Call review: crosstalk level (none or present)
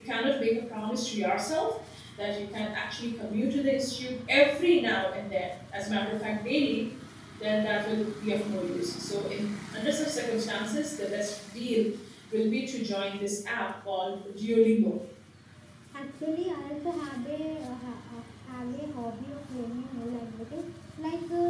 none